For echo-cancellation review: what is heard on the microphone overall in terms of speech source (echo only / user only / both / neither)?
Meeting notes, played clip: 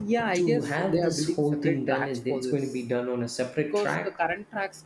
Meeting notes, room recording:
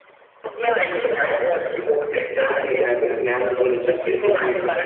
both